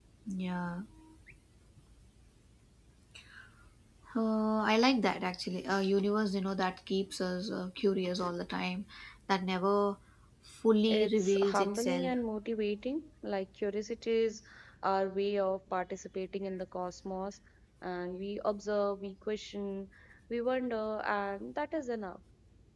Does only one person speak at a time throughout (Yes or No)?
No